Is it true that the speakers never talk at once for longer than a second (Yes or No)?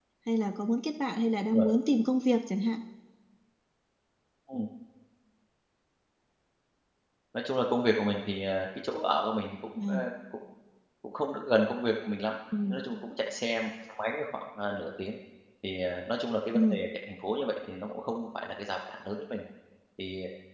Yes